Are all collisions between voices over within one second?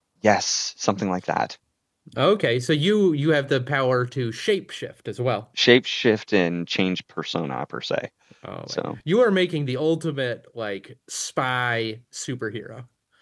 Yes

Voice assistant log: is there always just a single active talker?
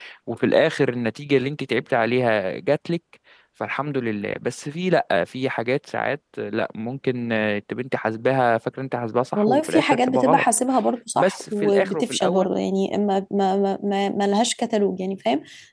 No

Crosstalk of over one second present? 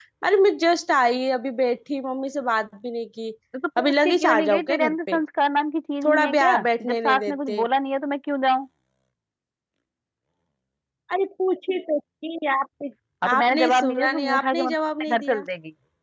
Yes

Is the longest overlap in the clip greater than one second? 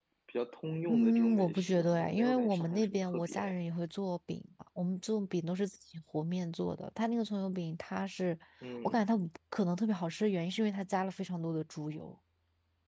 Yes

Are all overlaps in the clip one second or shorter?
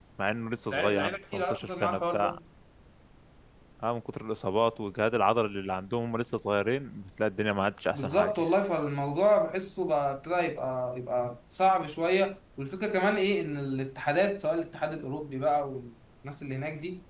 No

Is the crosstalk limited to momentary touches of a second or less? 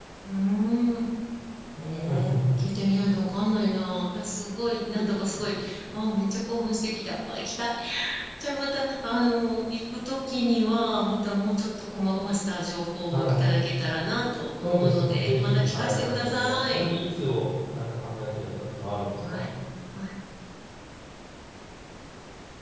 No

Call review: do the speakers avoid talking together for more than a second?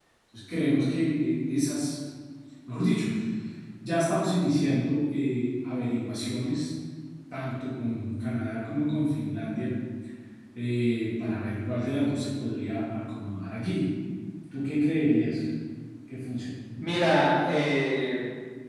Yes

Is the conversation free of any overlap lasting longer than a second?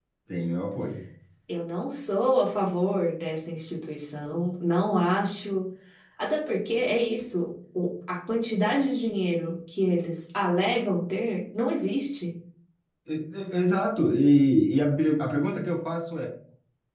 Yes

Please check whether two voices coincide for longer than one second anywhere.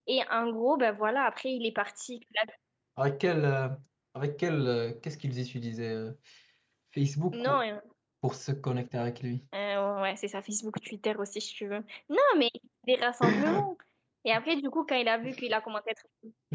No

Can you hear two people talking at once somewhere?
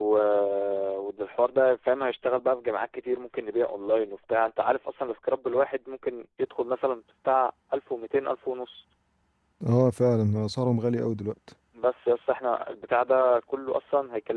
No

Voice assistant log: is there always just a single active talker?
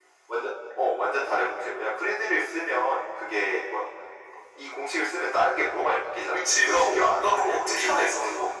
No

